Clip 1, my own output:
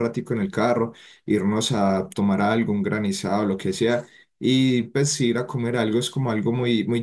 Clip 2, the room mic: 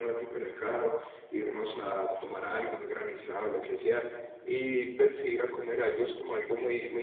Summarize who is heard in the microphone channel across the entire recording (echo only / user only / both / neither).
echo only